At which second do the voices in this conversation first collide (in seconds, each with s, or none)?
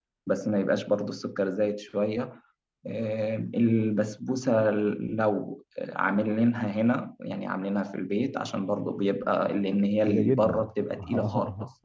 10.0 s